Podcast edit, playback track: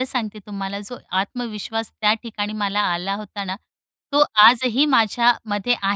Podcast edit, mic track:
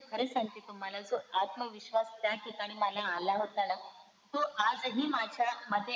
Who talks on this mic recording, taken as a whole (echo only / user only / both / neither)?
echo only